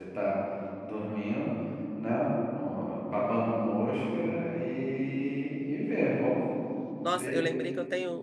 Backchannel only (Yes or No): No